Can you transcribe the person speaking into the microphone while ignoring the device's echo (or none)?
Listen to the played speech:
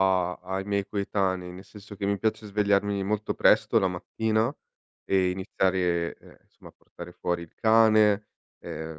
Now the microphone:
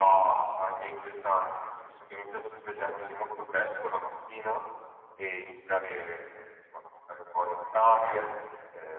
none